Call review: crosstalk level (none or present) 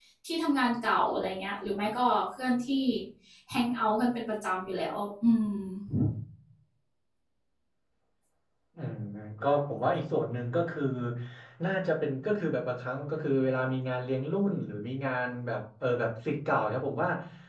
none